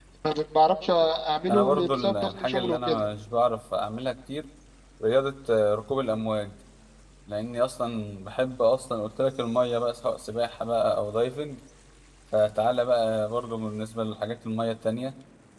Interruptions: present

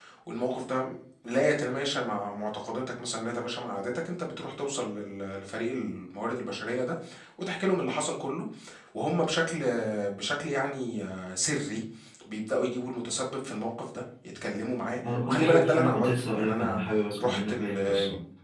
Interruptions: present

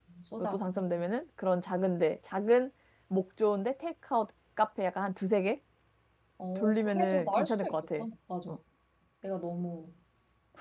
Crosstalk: present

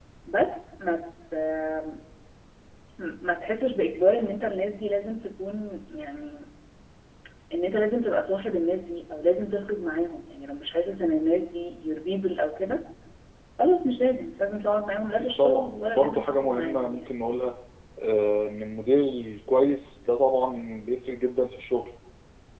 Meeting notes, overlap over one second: present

